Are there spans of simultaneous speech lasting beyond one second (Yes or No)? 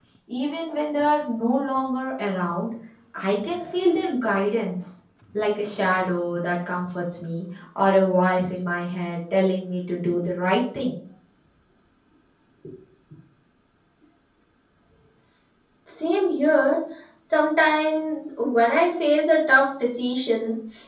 No